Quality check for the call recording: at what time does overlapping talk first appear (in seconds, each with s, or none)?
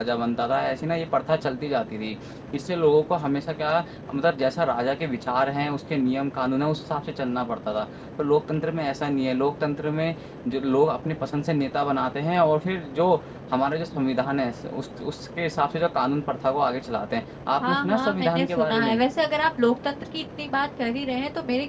17.6 s